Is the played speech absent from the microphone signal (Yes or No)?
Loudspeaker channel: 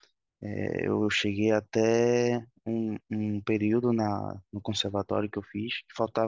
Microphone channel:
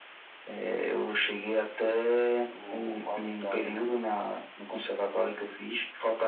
No